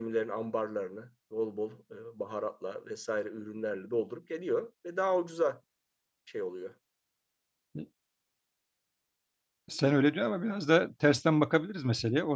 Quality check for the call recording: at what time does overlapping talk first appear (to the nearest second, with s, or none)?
none